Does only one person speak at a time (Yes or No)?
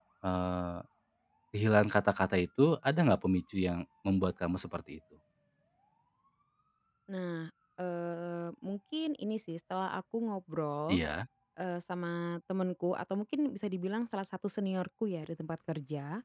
Yes